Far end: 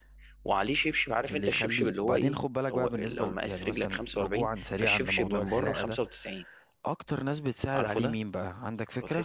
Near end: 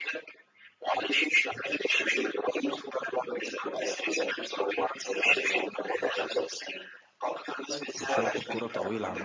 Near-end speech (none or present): present